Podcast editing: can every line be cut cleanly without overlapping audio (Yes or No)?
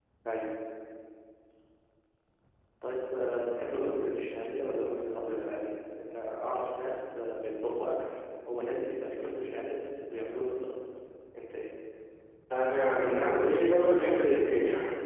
Yes